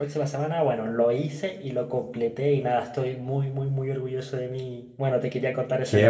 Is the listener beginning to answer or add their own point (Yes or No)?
Yes